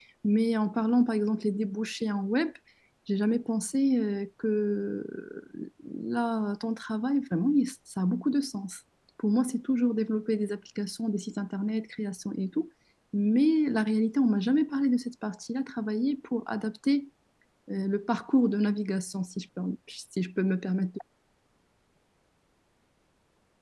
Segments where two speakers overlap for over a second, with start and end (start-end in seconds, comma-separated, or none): none